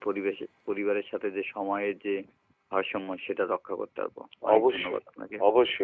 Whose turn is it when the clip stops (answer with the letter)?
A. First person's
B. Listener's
B